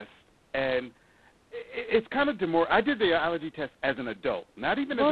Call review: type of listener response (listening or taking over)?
taking over